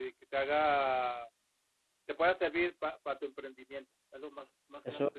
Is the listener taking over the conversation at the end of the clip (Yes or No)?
Yes